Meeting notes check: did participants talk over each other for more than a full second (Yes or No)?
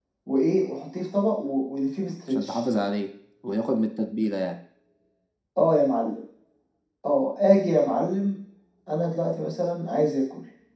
No